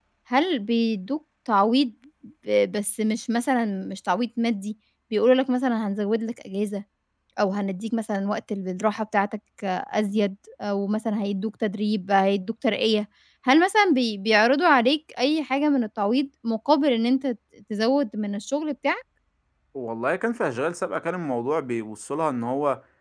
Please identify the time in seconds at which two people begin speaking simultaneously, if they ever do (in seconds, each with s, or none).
none